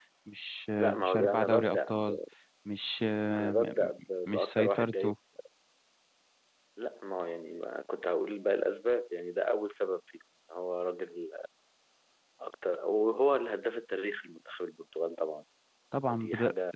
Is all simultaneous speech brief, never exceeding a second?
No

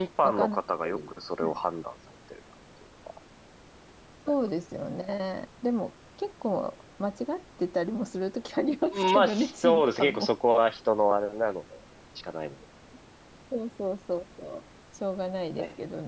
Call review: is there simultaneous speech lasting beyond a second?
Yes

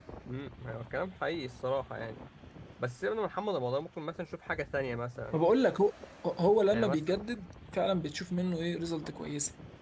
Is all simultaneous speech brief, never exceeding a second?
Yes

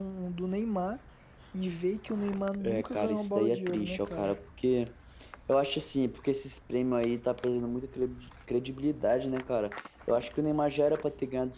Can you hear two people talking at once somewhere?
Yes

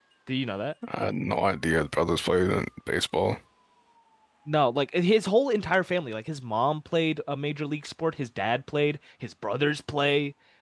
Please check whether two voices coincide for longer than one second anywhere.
No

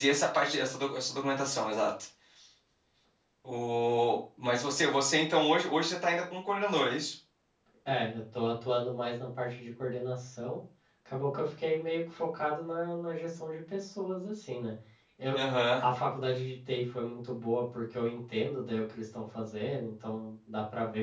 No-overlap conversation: Yes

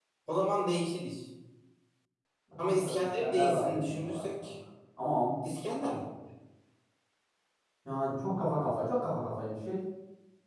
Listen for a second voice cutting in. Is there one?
Yes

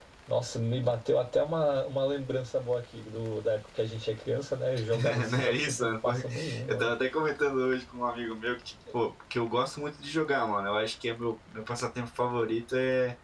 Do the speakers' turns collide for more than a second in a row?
Yes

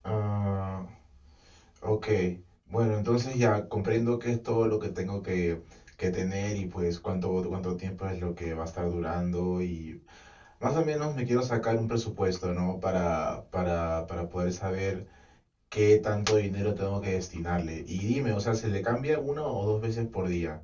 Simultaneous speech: No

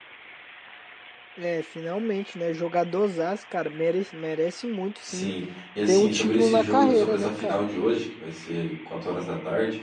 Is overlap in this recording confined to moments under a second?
No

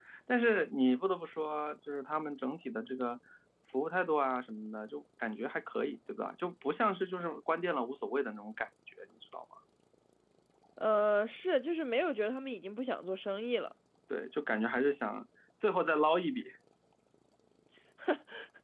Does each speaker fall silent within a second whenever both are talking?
Yes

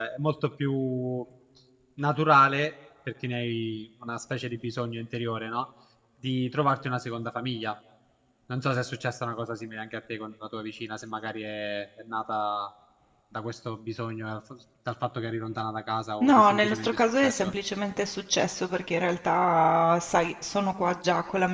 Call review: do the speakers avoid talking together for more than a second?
No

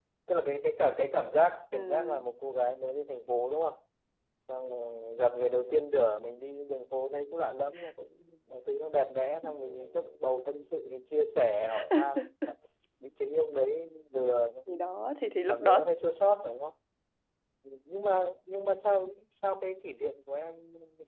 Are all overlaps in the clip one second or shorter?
Yes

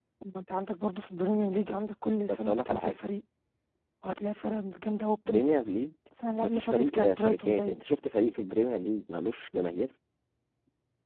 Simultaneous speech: Yes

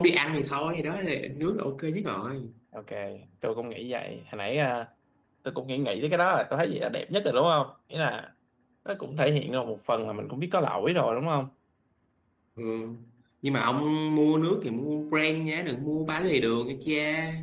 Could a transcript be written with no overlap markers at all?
Yes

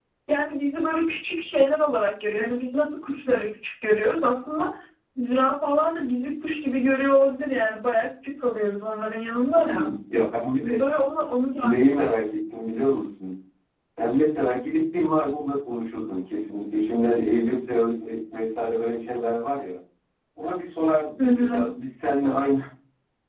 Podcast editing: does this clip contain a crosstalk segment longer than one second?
No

